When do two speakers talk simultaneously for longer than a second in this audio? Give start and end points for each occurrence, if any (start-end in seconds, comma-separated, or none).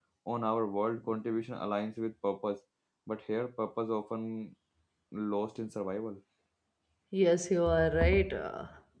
none